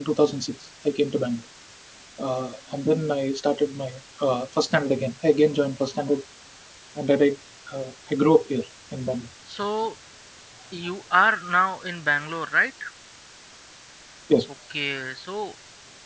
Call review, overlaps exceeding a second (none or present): none